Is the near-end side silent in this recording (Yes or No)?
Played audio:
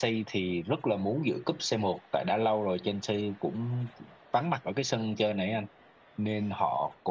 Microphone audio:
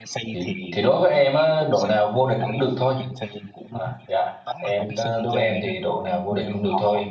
No